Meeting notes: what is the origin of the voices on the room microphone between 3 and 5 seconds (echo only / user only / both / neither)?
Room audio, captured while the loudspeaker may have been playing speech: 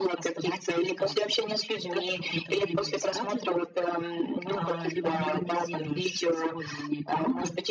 echo only